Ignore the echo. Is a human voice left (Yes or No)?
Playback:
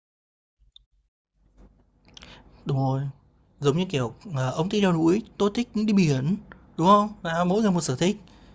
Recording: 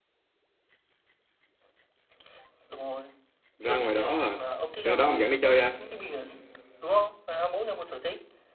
Yes